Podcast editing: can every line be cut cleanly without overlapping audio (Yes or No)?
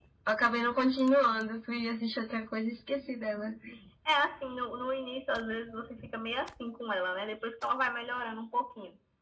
Yes